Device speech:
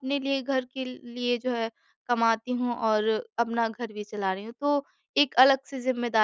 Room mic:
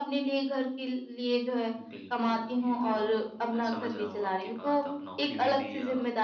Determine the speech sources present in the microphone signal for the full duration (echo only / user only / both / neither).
both